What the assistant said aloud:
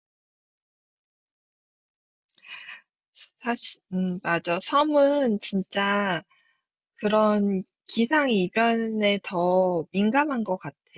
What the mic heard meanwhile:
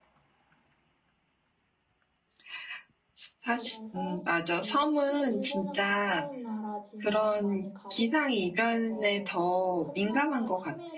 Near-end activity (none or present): present